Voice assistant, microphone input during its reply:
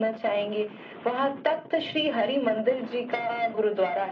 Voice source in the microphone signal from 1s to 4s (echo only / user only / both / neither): echo only